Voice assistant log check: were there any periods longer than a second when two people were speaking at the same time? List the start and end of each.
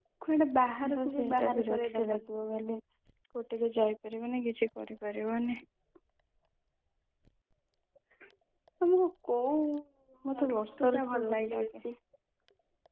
1.0-2.2, 10.4-11.7

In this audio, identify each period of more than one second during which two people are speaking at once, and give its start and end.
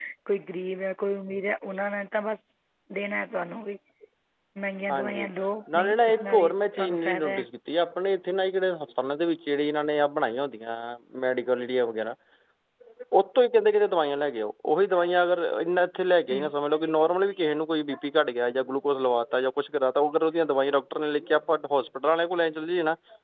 5.7-7.5

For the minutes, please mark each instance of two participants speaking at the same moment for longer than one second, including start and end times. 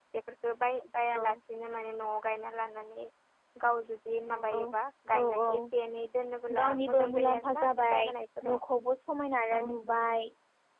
6.6-8.1

